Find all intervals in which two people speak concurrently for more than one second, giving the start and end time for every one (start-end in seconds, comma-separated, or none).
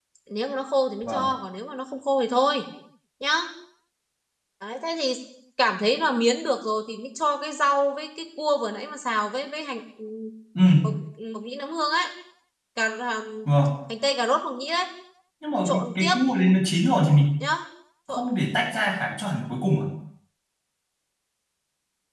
none